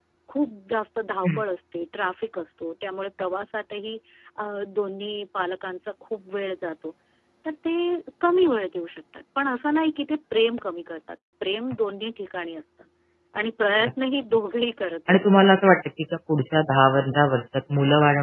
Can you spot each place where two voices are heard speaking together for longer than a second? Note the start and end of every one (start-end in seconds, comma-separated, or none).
none